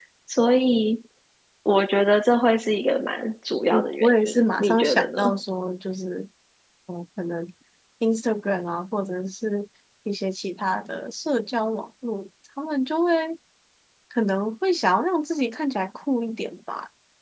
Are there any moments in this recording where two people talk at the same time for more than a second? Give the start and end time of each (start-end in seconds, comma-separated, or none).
4.0-5.3